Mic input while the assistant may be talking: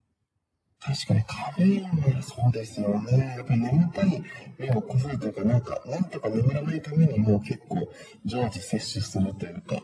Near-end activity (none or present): none